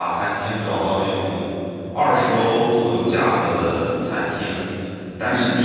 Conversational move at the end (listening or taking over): listening